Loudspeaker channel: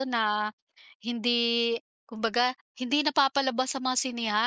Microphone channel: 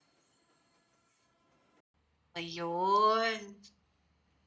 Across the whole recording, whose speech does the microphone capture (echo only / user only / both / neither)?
user only